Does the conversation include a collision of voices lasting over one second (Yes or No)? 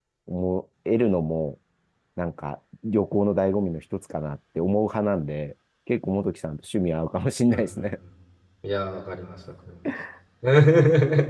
No